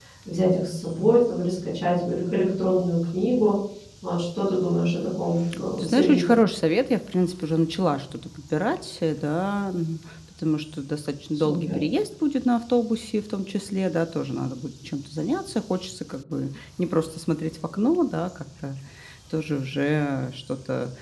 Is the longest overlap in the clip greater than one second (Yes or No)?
No